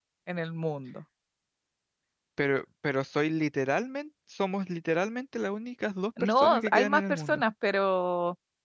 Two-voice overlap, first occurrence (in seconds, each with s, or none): 6.2 s